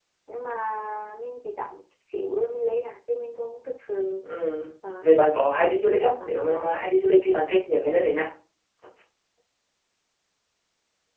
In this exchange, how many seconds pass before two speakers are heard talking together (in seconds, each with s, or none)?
5.0 s